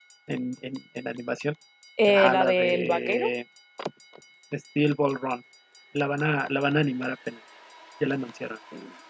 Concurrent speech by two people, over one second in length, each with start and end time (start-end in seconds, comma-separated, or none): 2.1-3.3